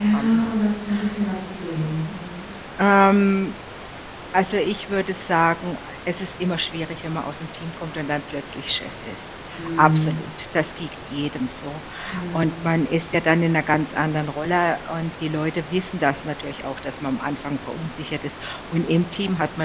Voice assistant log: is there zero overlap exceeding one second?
Yes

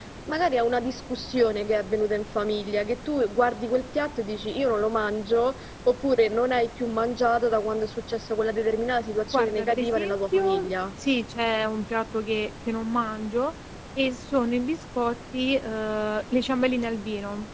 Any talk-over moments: Yes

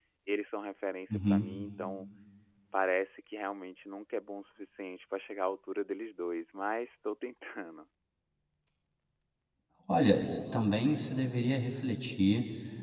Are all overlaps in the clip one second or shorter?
Yes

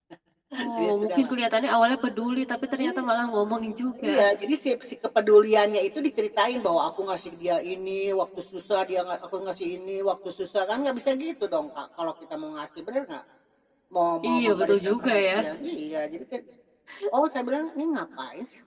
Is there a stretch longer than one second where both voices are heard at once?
Yes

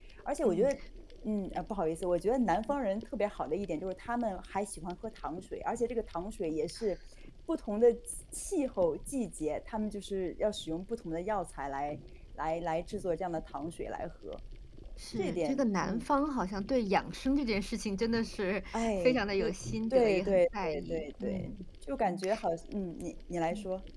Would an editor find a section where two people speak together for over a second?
Yes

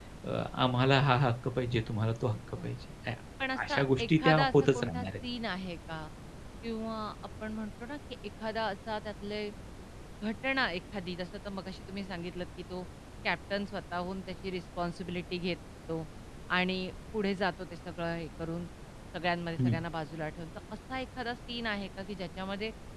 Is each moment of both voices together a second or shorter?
No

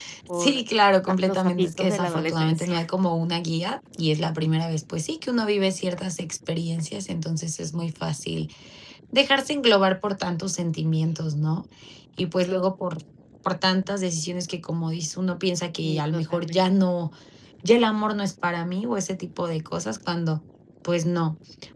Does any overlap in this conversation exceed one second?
Yes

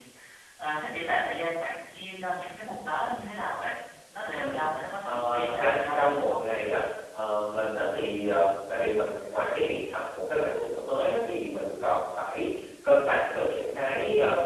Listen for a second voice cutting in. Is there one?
Yes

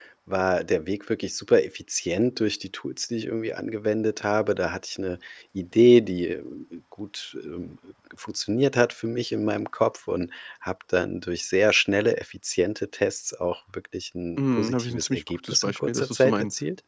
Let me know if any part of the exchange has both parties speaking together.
Yes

